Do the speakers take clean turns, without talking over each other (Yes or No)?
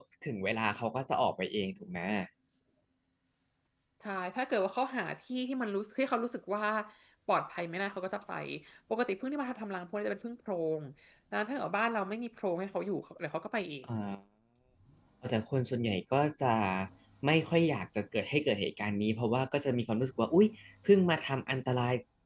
Yes